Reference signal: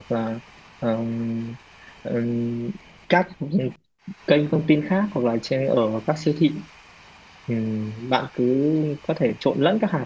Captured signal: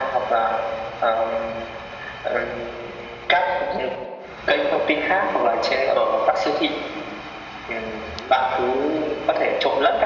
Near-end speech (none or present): none